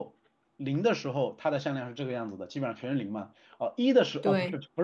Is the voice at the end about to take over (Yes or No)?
No